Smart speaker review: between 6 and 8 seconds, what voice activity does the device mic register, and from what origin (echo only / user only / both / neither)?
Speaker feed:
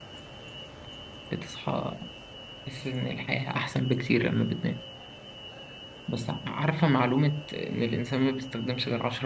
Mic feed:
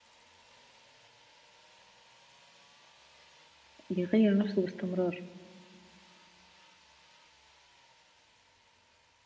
neither